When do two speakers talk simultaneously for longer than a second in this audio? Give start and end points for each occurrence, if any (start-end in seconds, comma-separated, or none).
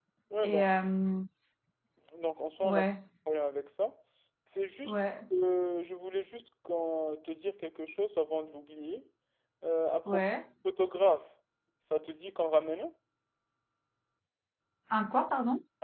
none